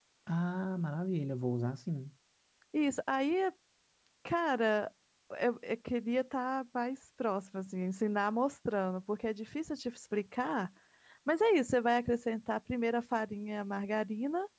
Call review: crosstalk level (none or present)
none